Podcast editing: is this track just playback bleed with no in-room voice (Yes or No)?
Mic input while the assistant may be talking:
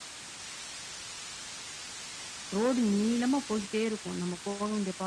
No